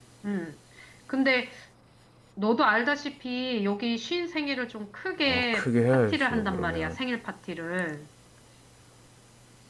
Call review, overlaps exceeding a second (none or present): present